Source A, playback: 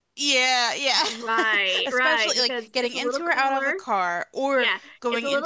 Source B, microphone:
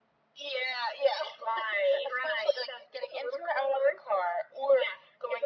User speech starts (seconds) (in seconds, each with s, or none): none